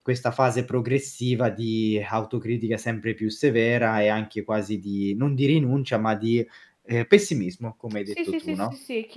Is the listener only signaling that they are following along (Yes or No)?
No